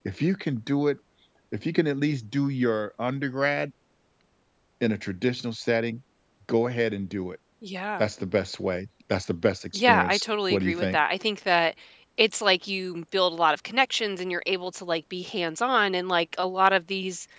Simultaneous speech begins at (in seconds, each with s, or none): 9.7 s